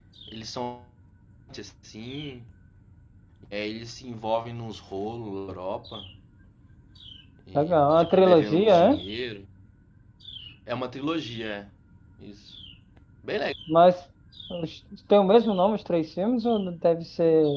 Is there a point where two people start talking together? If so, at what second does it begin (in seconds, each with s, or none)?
7.5 s